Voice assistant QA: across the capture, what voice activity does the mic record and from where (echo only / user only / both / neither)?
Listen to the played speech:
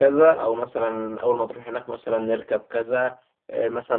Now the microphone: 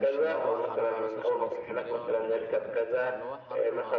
both